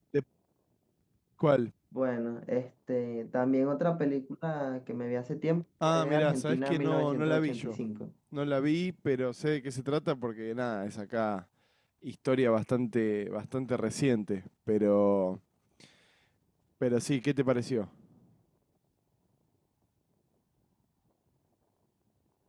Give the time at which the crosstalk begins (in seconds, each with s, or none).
5.8 s